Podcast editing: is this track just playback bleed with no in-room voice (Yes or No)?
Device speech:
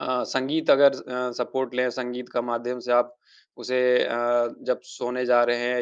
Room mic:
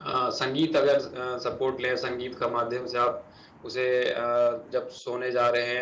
Yes